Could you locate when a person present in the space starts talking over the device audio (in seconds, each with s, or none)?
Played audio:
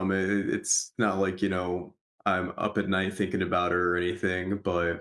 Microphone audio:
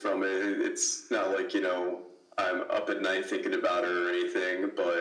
none